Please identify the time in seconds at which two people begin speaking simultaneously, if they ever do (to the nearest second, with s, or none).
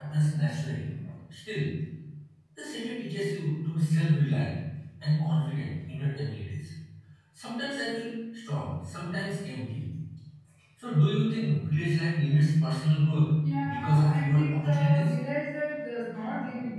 14 s